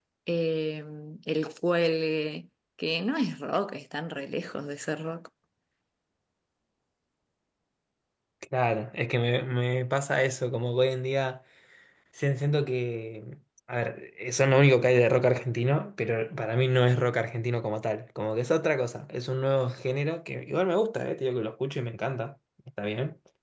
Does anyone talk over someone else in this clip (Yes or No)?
No